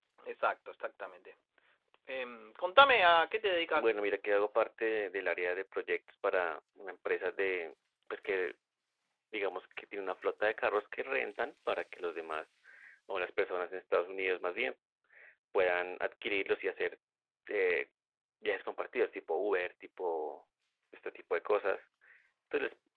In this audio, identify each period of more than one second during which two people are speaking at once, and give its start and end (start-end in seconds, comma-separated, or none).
none